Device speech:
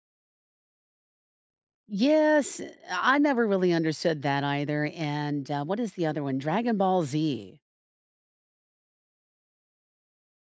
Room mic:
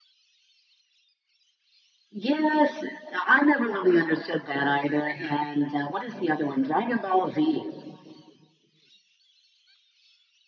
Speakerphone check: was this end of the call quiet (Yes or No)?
Yes